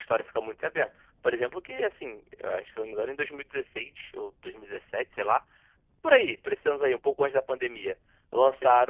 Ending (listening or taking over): listening